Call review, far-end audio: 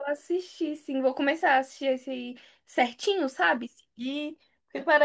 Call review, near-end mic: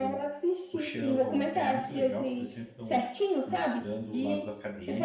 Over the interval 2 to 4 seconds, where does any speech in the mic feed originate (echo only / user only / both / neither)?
both